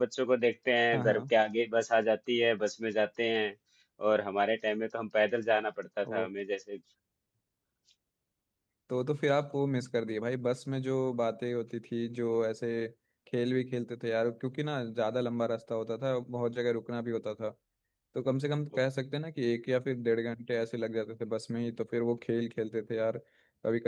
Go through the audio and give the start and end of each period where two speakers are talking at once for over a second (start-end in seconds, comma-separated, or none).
none